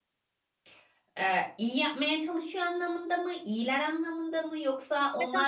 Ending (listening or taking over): taking over